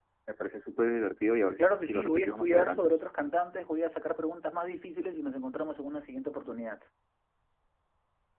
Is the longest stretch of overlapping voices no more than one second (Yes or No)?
No